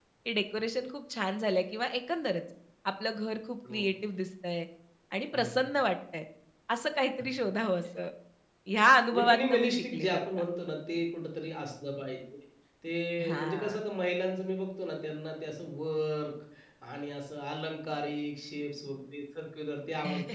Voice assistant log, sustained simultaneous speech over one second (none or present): present